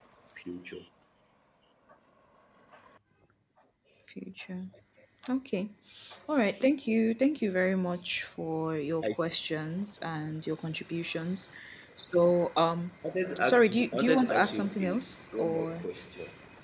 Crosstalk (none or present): present